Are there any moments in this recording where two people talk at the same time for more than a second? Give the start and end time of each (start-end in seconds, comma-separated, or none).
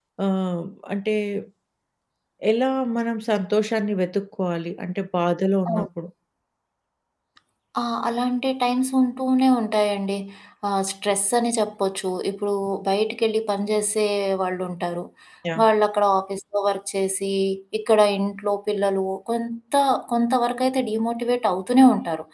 none